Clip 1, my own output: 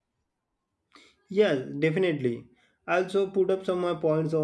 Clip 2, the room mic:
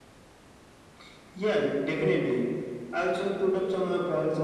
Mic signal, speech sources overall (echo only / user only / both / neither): echo only